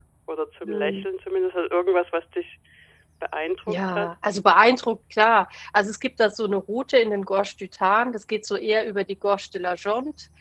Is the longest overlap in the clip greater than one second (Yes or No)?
No